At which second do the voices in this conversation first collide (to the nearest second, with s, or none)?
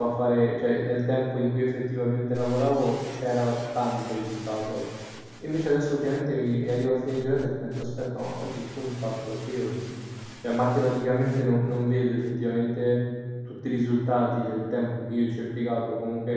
none